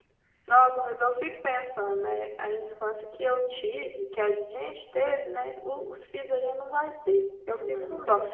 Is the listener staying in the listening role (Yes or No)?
Yes